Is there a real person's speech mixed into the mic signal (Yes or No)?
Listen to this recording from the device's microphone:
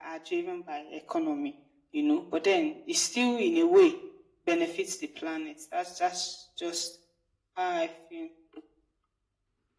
No